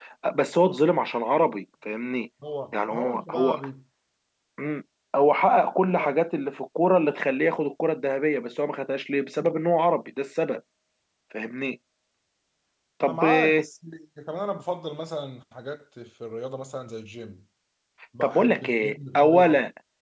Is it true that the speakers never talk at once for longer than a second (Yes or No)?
No